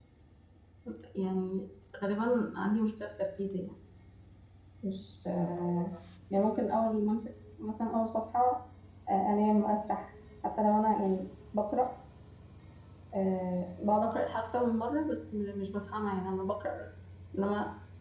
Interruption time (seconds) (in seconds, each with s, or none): none